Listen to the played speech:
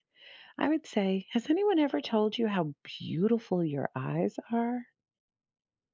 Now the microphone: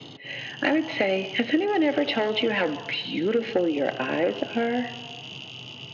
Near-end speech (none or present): none